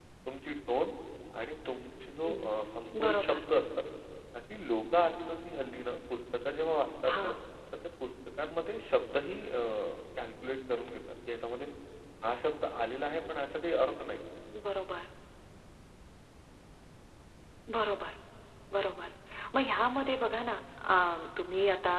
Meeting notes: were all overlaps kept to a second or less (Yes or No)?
Yes